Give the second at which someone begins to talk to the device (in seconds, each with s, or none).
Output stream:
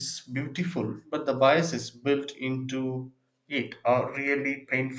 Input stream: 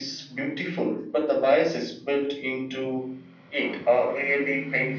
none